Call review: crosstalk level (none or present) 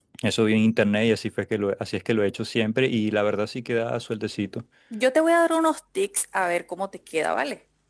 none